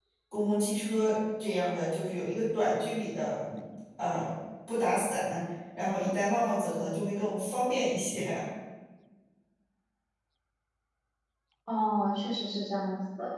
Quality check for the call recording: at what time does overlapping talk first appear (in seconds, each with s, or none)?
none